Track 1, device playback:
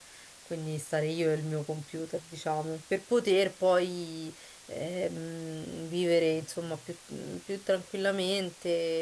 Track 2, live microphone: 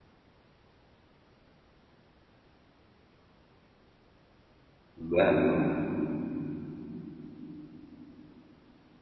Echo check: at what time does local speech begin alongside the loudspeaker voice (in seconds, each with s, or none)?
5.0 s